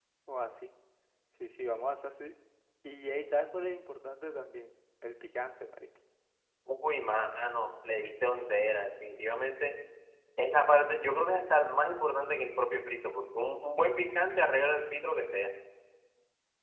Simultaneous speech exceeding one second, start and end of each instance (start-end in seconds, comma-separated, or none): none